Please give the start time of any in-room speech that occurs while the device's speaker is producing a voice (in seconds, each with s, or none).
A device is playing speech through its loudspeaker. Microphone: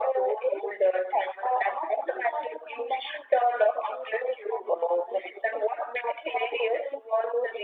none